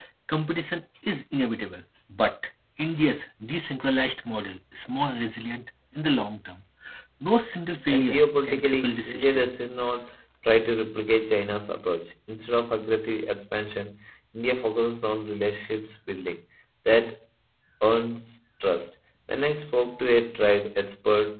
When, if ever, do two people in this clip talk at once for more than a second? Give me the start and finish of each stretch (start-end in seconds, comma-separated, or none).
7.9-9.5